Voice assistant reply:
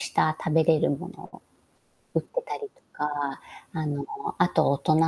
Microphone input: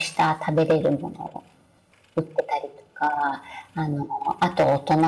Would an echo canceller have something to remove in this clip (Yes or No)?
Yes